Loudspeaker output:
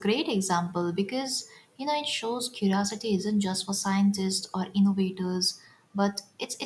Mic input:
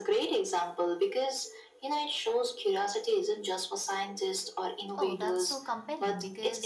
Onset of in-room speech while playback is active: 5 s

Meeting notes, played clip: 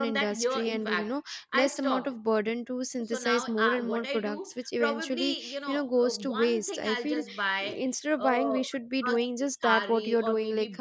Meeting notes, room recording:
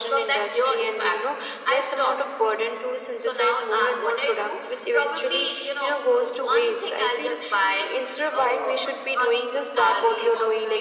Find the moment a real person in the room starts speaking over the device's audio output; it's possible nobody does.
none

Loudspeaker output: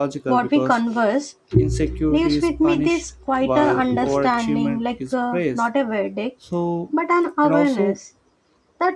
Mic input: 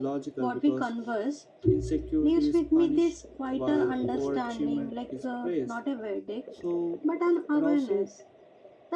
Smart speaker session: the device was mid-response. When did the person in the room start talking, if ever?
none

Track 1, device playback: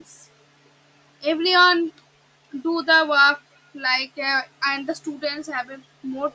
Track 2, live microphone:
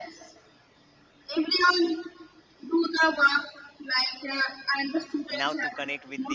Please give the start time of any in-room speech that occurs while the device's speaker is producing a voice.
5 s

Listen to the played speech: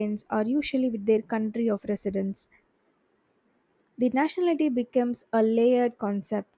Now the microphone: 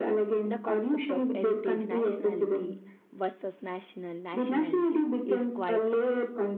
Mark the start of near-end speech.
0 s

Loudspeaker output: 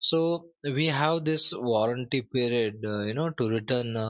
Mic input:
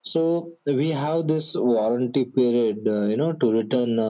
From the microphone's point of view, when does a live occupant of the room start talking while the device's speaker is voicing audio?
none

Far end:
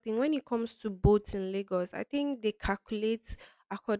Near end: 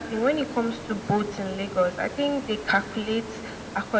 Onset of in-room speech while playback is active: none

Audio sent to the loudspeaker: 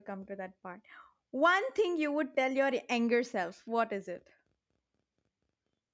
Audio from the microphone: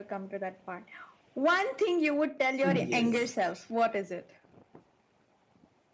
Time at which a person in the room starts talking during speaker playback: 3 s

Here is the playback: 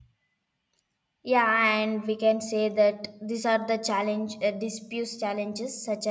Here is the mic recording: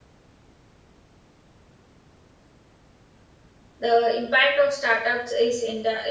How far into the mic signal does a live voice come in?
4 s

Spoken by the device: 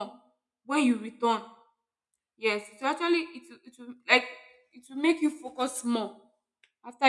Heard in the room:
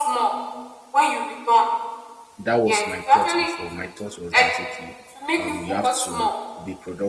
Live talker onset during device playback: 2 s

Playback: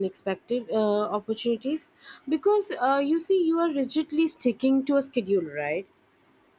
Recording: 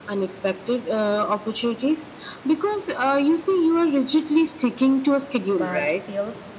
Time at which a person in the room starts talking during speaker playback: 6 s

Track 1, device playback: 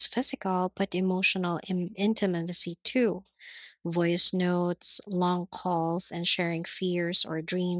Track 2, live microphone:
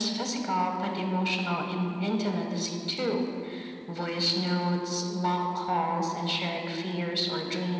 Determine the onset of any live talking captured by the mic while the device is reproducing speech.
none

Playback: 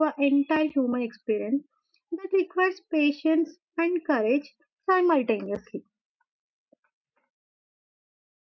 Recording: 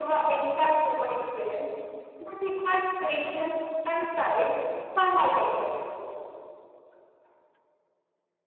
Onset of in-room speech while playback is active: none

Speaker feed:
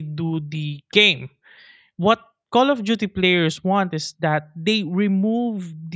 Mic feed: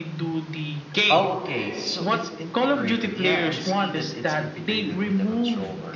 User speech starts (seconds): 1 s

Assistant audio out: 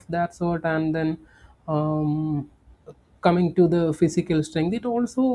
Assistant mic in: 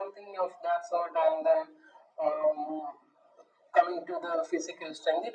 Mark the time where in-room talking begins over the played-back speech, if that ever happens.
none

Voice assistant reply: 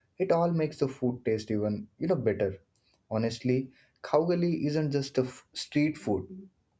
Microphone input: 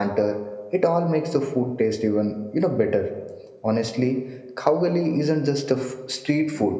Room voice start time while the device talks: none

